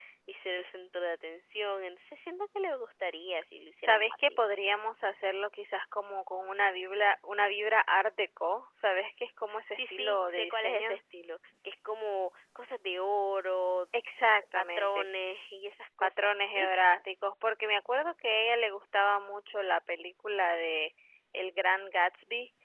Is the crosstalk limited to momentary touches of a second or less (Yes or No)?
No